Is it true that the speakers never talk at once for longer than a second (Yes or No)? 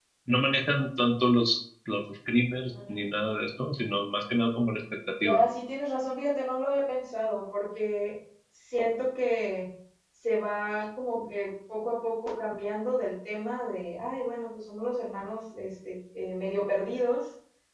Yes